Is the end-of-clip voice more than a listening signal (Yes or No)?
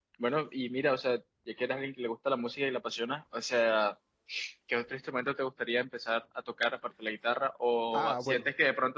No